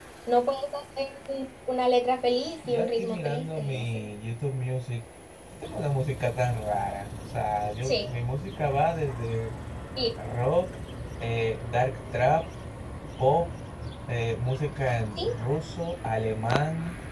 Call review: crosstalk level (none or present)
present